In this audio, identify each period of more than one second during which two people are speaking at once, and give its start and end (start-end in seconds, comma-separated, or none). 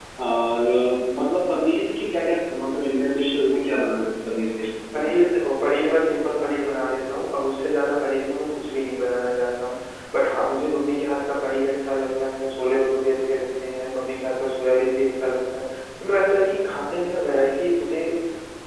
none